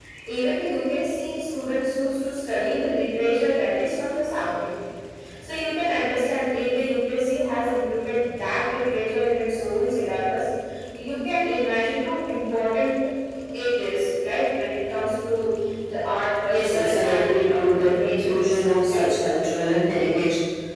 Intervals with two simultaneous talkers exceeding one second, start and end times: 16.5-19.1

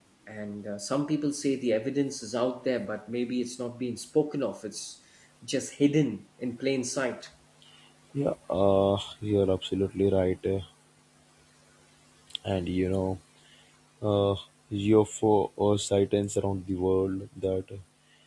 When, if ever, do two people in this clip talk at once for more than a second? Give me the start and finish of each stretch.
none

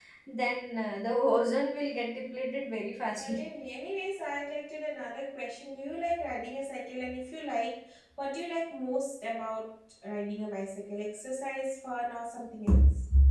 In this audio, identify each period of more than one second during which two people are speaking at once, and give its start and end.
none

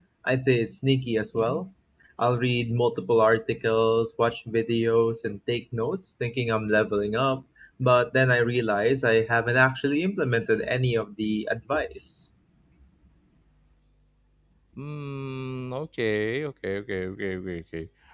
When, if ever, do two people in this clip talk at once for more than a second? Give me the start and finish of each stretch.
none

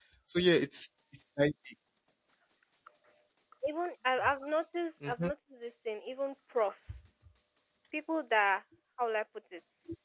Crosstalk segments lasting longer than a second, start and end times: none

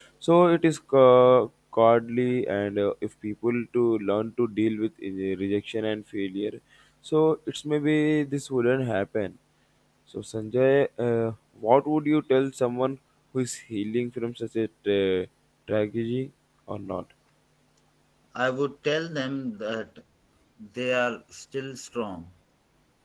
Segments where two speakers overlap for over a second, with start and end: none

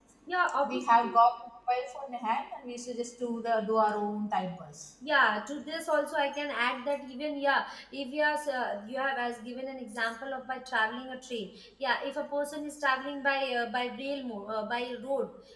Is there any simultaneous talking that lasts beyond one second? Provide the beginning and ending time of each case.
none

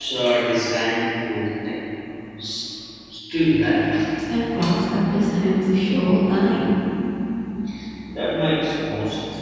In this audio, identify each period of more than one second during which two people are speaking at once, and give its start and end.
none

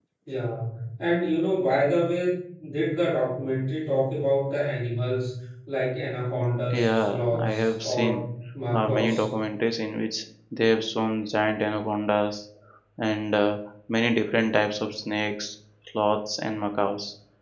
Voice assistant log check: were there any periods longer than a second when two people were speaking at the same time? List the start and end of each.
6.8-8.1

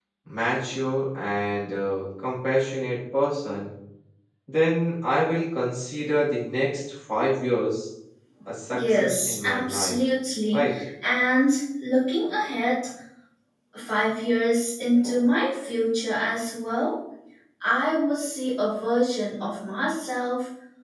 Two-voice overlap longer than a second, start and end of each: 8.7-10.0

